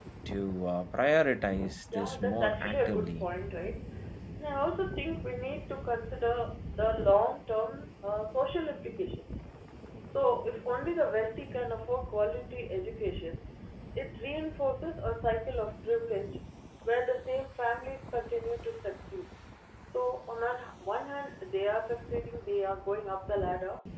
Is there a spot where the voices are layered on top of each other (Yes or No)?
Yes